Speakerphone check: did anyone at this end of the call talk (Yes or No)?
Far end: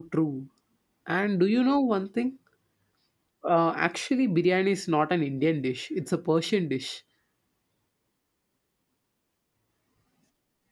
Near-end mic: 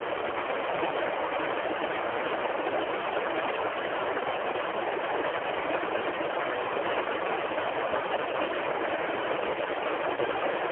No